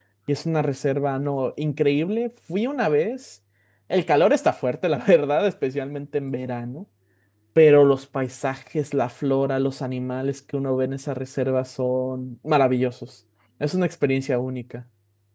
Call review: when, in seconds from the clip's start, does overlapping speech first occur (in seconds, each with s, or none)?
none